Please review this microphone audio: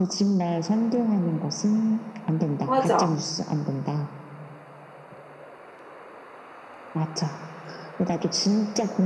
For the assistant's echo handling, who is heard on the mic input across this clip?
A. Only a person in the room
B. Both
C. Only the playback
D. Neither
B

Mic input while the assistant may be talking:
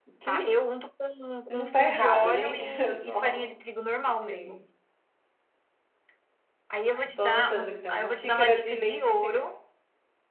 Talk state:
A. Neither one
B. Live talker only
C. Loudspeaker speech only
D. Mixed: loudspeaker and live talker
D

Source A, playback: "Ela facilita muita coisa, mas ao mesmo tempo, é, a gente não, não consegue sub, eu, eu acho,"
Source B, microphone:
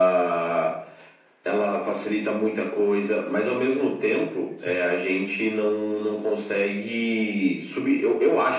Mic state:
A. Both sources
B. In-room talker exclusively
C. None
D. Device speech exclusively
A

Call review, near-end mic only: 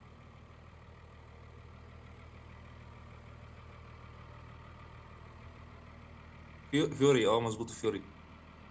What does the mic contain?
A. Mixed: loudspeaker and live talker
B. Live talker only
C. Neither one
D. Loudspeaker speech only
B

